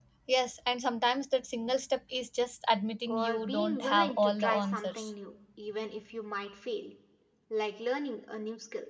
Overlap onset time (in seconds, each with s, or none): 3.1 s